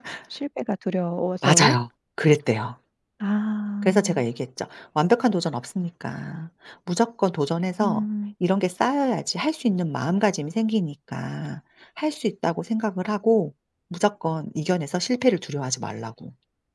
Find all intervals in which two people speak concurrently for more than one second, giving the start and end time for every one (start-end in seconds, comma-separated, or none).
none